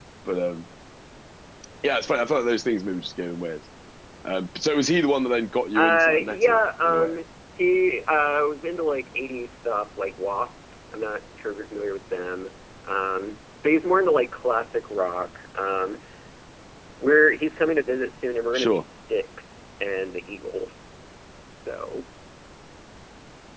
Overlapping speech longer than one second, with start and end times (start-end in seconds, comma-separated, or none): 5.8-7.1